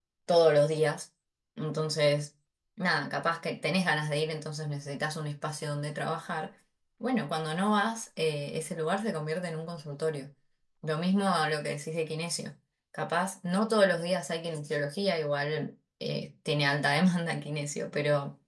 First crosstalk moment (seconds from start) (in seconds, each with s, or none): none